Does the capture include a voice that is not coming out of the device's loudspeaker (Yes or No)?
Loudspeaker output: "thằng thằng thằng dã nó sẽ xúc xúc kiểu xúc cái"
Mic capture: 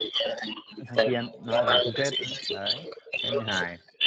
Yes